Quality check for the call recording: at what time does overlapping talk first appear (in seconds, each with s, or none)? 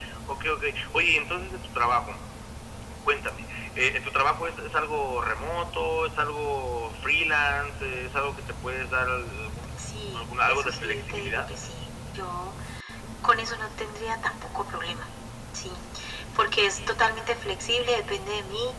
10.1 s